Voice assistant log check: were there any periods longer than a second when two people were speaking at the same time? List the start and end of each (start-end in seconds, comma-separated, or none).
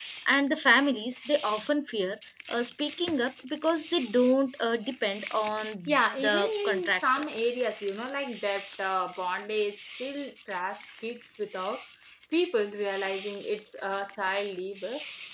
5.9-7.2